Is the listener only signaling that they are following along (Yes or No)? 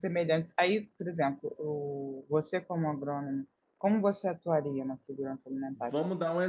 No